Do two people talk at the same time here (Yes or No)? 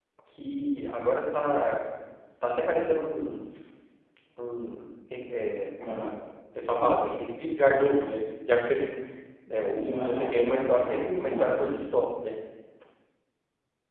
Yes